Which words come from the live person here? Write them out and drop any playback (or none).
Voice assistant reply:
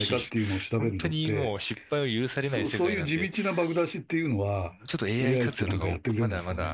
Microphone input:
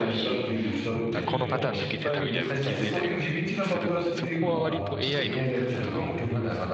あ、このパターン抜けてたみたいなの気づいたりもするので、そこは割と AI の